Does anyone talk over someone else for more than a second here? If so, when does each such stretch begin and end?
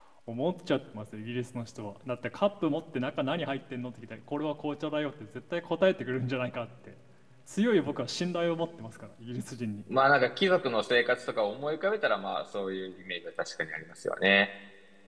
none

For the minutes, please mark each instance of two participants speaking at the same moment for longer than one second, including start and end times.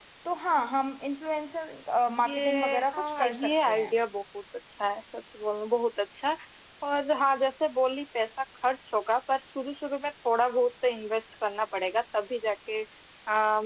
2.2-3.9

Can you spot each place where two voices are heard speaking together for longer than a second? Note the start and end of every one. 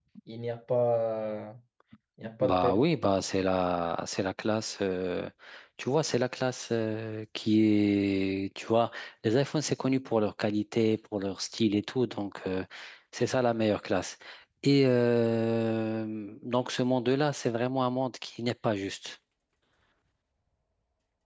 none

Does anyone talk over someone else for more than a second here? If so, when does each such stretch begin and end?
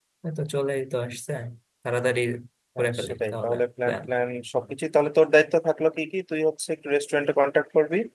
2.8-4.0

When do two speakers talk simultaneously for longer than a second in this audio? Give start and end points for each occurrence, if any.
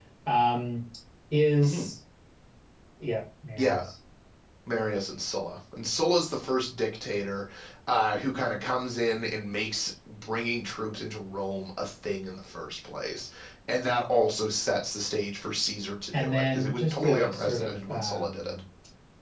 16.1-18.6

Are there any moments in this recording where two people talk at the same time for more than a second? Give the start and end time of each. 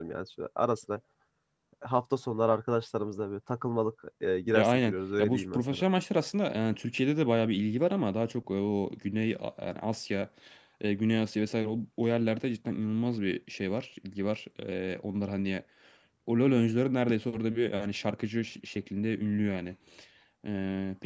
4.5-5.8

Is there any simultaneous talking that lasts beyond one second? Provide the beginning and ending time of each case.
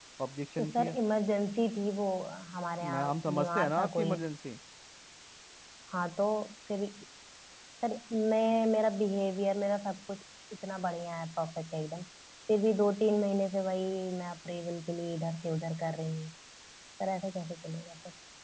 2.8-4.2

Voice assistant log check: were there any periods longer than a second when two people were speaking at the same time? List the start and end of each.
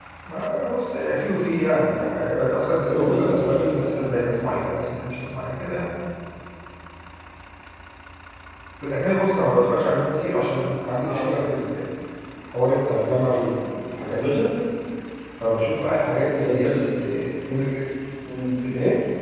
2.9-4.2

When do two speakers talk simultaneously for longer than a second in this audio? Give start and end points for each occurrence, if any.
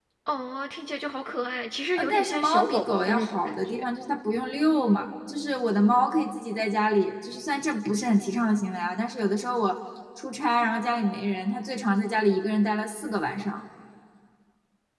1.9-3.9

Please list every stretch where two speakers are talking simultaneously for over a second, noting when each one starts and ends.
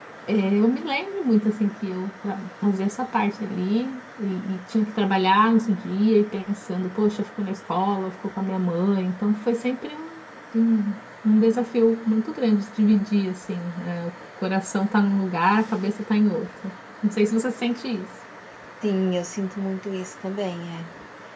none

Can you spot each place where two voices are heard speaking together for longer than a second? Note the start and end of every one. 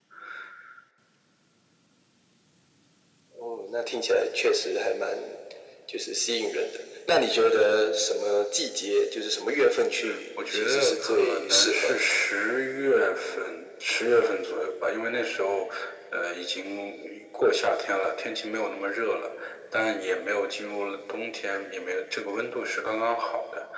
10.5-12.0

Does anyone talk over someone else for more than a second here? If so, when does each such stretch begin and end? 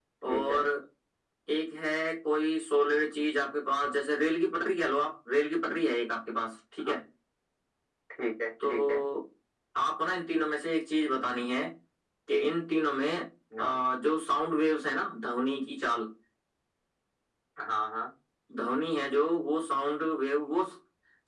none

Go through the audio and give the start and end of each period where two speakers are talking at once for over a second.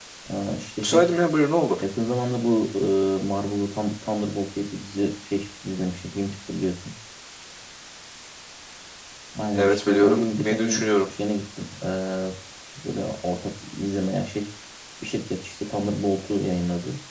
9.5-10.8

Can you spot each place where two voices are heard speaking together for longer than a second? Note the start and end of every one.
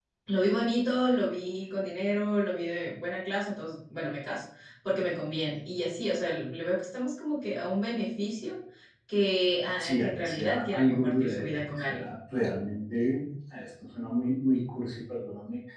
9.8-12.1

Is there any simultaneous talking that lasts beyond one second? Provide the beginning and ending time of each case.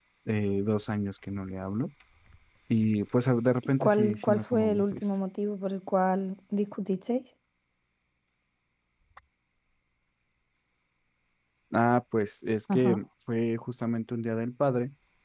3.7-5.0

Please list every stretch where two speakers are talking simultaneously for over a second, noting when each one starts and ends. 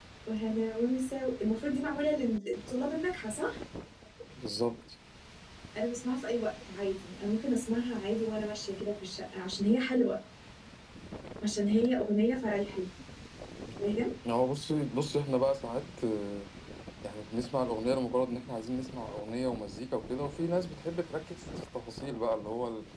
none

